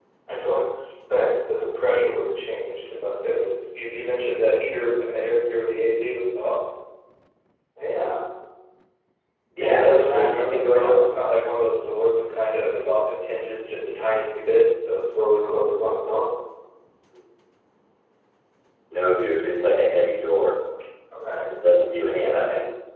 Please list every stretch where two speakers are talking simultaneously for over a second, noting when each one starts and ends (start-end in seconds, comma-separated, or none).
9.6-11.1